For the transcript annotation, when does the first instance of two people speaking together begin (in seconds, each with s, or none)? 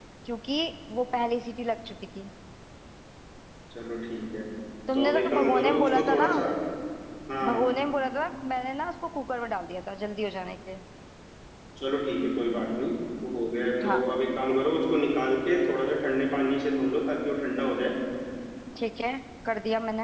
4.9 s